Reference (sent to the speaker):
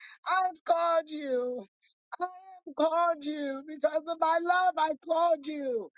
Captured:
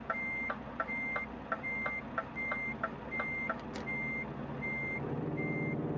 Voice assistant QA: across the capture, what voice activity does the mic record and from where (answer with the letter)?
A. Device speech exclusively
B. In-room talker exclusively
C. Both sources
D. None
D